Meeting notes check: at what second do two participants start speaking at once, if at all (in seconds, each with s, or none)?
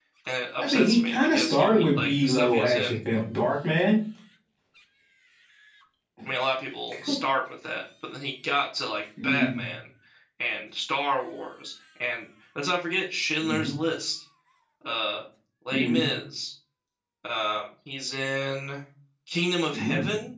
0.6 s